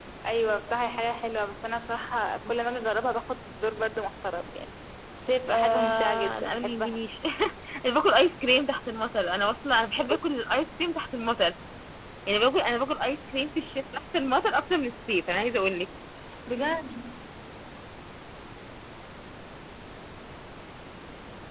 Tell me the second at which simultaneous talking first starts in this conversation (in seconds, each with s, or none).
5.5 s